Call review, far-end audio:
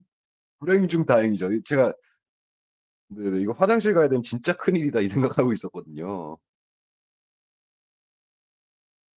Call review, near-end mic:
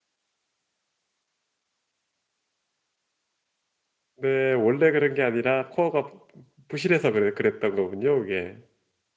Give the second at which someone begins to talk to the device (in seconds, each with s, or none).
4.2 s